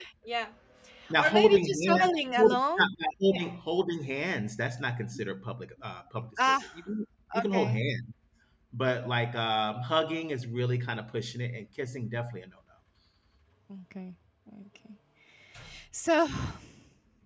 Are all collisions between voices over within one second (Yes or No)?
No